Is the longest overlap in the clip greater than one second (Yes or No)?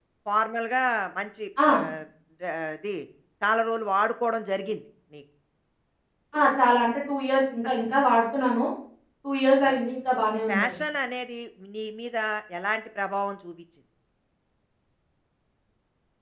No